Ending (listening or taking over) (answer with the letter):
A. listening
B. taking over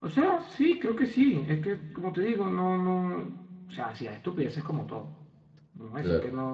A